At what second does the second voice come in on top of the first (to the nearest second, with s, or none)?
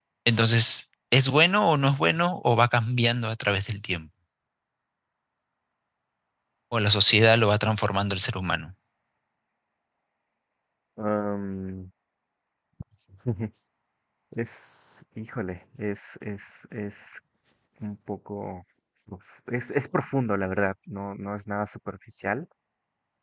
none